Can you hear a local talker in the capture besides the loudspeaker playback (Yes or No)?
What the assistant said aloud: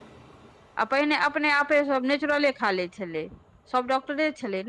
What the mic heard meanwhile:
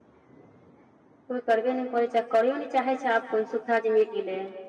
Yes